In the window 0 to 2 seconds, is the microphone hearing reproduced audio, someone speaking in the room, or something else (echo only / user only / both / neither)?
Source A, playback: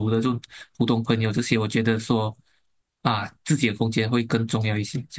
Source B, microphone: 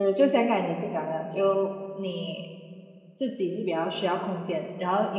user only